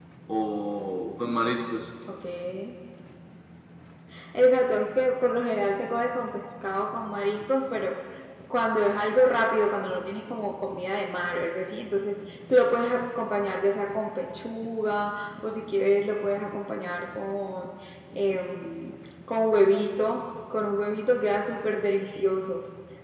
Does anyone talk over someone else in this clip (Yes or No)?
No